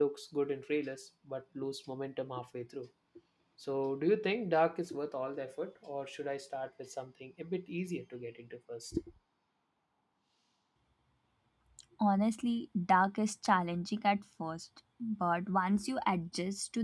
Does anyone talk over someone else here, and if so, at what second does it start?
none

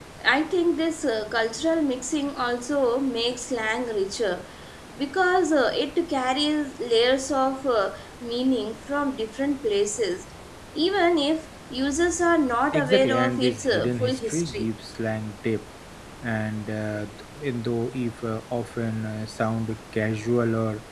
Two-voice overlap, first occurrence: 12.7 s

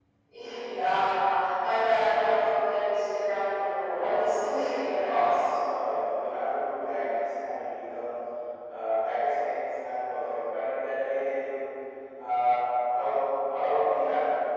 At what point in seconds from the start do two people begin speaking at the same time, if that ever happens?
3.8 s

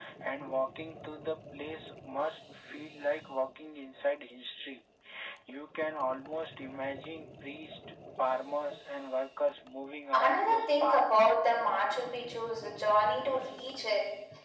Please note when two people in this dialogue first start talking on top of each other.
10.1 s

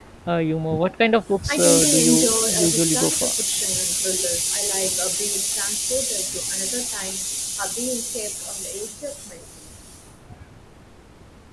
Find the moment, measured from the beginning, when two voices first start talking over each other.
1.5 s

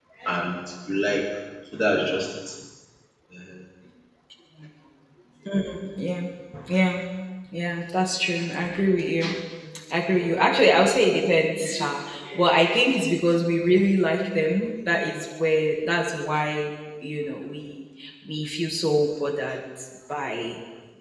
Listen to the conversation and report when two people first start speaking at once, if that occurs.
none

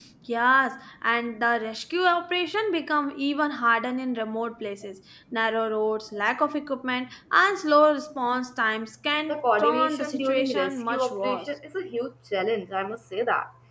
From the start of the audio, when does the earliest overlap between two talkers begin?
9.3 s

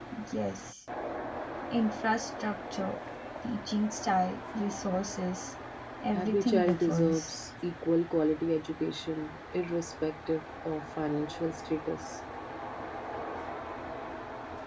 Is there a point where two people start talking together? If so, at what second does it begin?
6.1 s

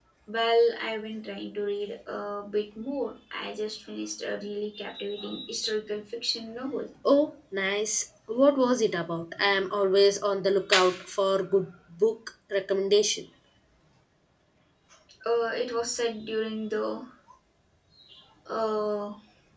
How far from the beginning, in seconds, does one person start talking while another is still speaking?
none

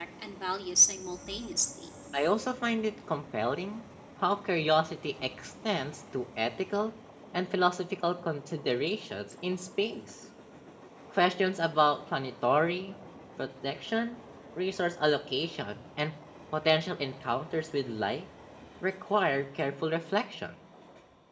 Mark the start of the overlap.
none

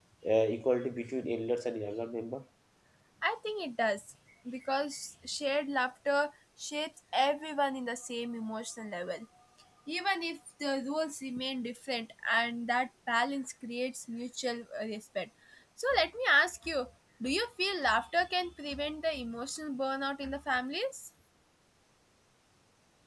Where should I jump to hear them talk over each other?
none

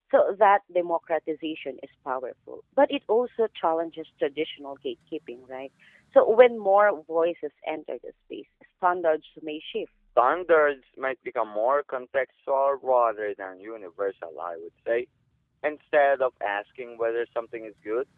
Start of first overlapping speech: none

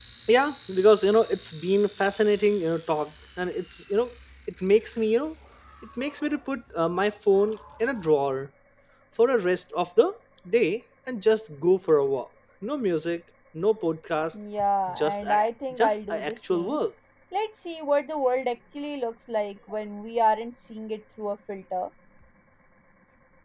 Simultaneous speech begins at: 14.9 s

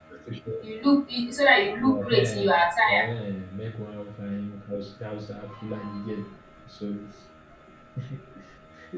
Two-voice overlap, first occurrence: 1.8 s

